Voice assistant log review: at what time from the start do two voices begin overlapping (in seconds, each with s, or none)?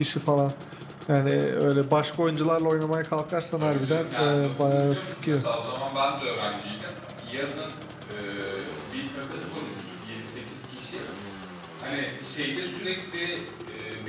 3.6 s